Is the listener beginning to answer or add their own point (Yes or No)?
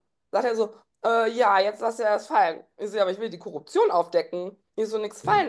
No